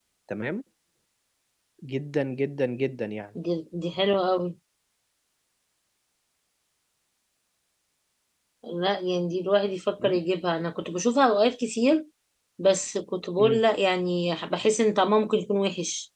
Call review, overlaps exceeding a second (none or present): none